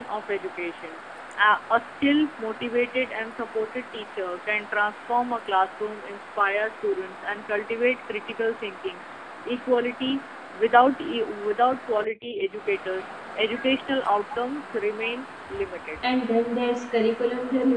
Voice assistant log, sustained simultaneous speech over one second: none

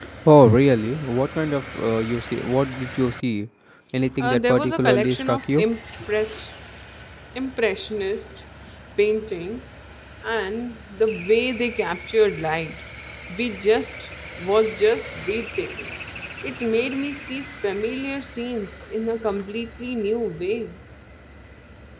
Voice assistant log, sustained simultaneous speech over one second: present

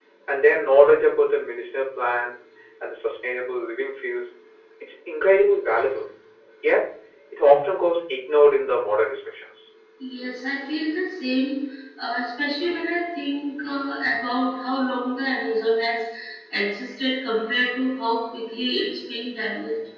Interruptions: none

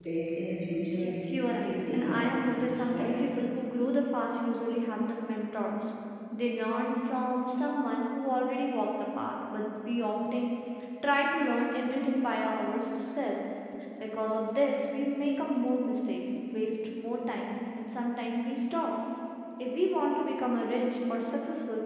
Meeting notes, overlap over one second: present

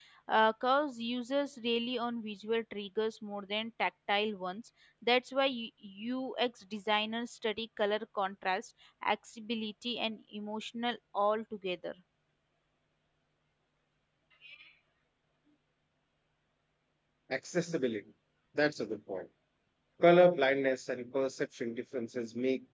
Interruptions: none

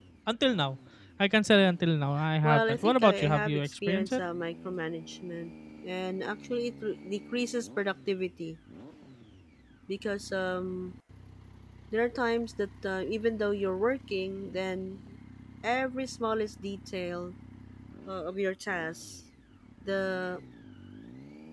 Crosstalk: present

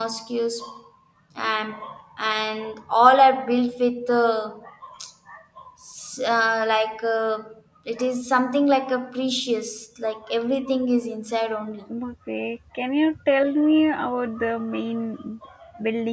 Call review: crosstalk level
none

